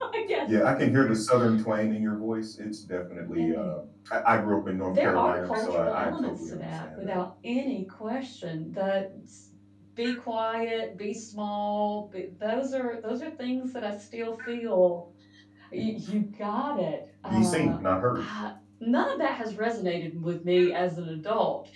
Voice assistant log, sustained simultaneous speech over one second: present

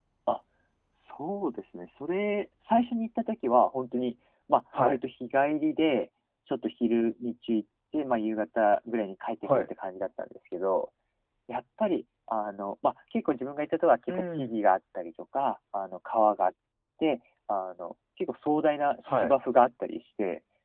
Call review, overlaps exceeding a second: none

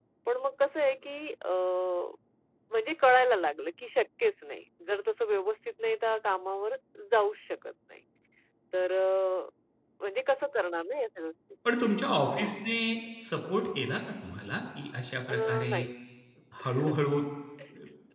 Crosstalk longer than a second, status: none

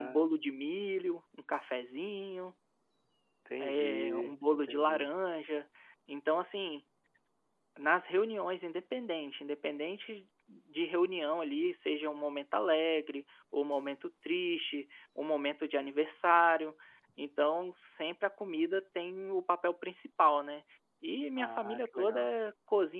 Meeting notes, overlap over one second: present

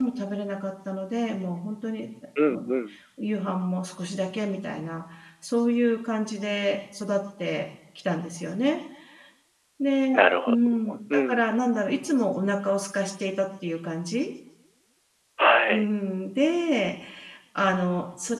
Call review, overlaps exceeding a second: none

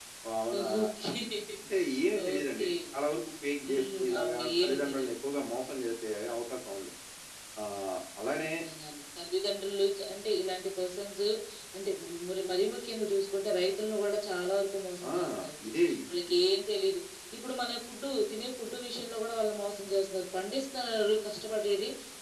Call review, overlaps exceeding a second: present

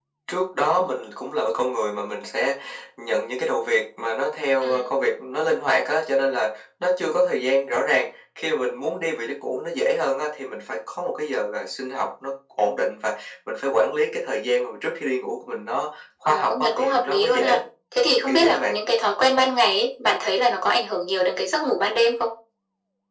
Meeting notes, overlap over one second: present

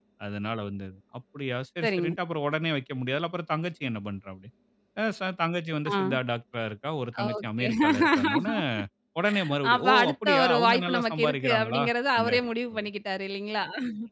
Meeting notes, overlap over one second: present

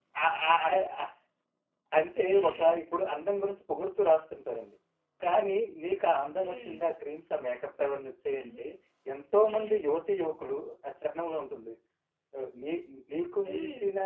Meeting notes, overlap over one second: none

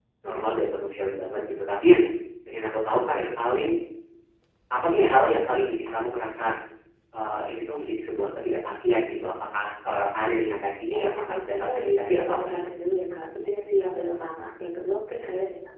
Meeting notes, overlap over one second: present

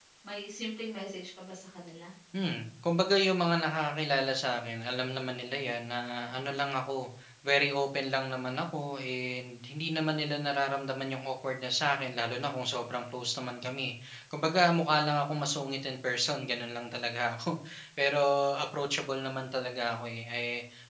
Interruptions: none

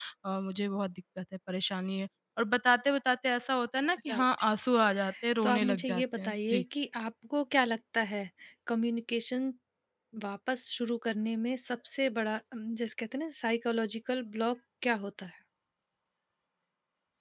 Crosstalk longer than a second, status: present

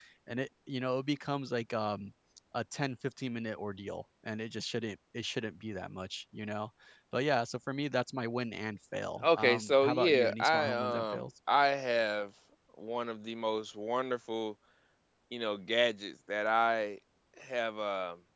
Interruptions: present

